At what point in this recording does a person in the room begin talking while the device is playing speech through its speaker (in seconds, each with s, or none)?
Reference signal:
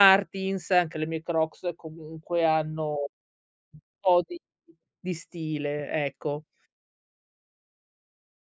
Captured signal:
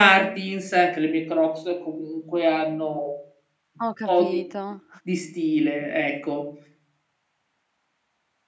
3.8 s